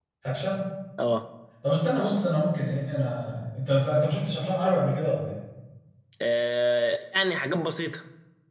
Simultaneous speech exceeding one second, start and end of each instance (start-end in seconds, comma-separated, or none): none